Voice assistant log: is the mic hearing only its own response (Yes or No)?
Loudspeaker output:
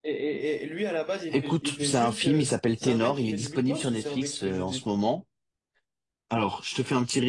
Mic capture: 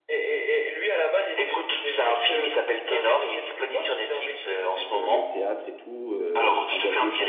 No